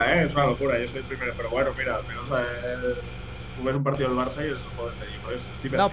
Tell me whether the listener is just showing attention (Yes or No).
No